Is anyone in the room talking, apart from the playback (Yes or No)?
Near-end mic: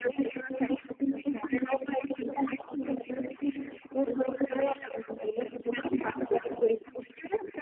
No